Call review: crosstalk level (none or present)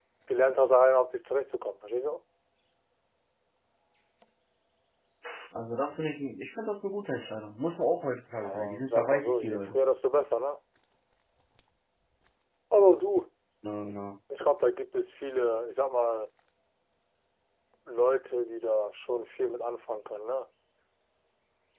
present